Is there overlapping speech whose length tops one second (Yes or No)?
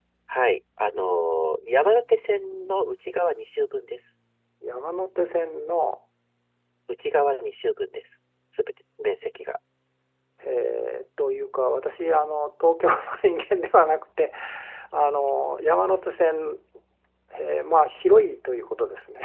No